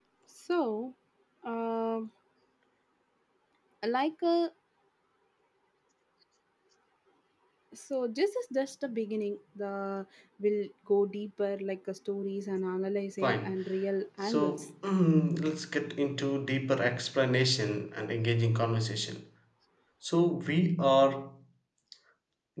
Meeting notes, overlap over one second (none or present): none